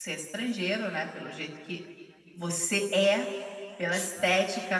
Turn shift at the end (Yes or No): No